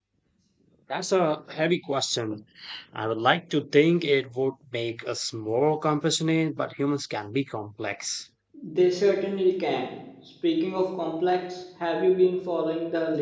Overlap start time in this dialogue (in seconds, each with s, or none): none